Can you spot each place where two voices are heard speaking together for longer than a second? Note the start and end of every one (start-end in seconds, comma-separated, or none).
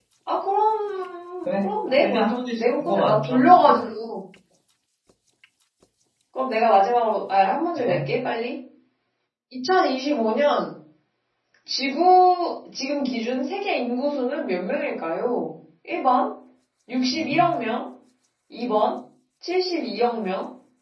1.4-3.9